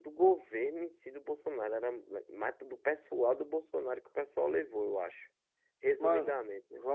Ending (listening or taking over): taking over